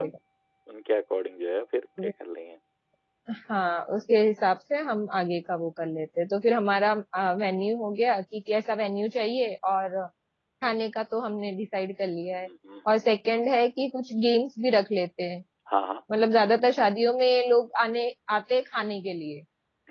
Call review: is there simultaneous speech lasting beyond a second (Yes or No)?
No